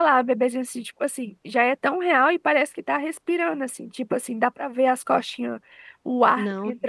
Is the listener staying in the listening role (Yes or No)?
Yes